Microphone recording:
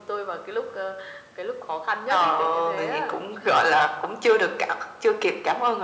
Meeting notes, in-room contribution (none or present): none